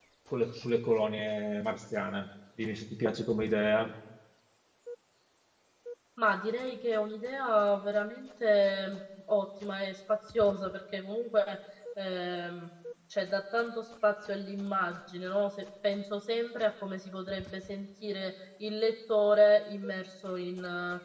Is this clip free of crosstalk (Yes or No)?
Yes